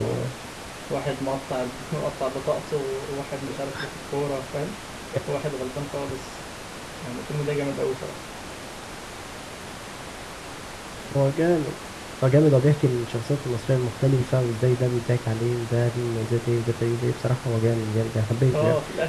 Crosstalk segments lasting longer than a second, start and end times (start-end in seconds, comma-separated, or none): none